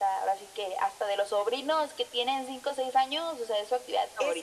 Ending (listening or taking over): taking over